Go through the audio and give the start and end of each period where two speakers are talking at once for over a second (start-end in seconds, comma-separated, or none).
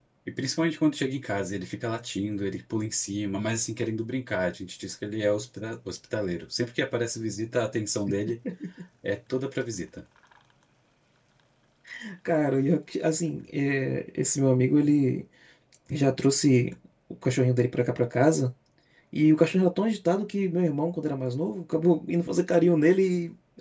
none